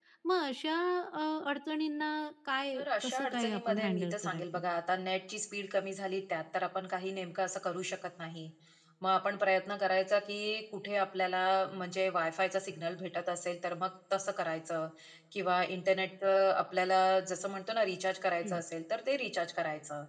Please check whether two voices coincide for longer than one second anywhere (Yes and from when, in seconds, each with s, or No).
Yes, from 2.7 s